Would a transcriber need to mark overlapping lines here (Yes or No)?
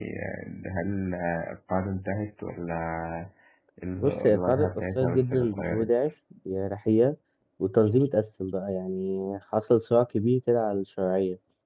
Yes